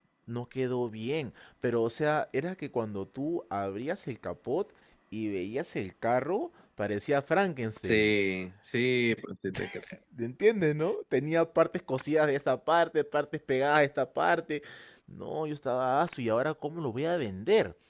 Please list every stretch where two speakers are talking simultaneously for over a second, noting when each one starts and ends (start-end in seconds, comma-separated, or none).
none